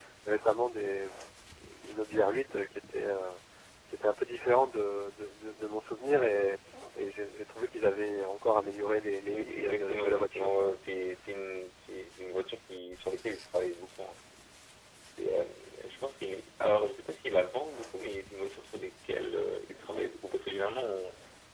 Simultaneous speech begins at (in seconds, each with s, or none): 9.3 s